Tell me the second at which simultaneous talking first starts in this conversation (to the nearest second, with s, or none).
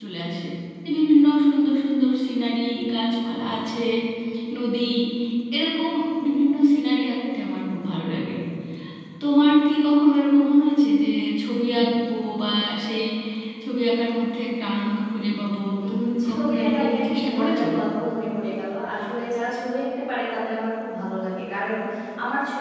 16 s